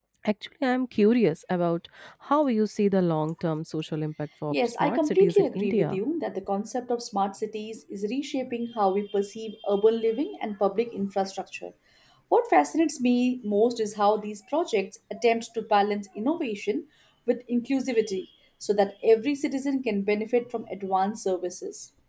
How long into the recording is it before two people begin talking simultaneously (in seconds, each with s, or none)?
4.5 s